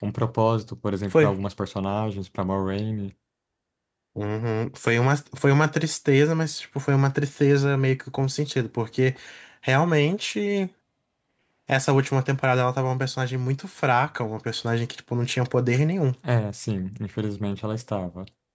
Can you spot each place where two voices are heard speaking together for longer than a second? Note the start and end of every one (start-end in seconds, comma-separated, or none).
none